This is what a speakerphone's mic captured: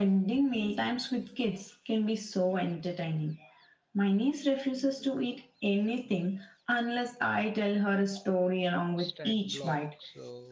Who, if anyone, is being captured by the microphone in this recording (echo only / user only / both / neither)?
both